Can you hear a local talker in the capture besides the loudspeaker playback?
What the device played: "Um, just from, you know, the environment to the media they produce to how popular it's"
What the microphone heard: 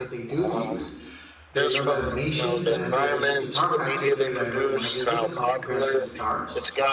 Yes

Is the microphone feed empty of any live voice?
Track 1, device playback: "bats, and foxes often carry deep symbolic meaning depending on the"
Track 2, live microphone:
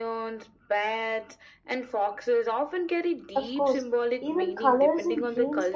No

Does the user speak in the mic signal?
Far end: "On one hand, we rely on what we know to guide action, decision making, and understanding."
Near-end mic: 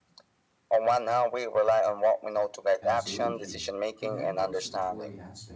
Yes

